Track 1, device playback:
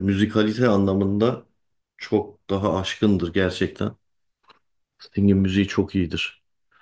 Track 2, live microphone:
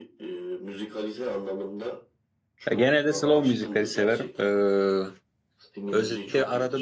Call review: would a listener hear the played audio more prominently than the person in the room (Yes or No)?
No